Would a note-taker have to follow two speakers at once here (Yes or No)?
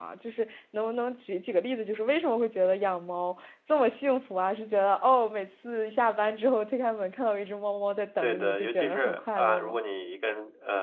Yes